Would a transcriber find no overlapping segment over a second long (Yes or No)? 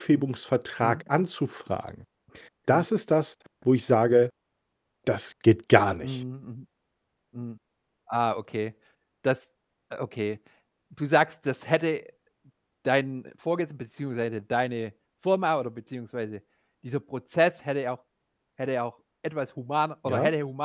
Yes